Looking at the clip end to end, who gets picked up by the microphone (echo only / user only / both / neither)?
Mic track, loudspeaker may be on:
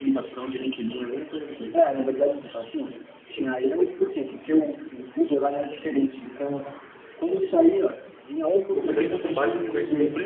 both